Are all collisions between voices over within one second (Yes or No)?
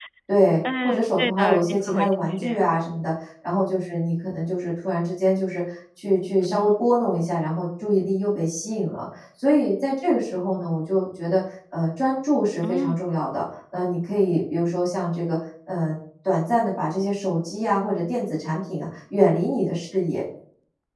No